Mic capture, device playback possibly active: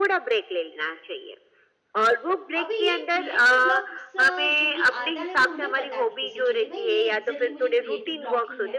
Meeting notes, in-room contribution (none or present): present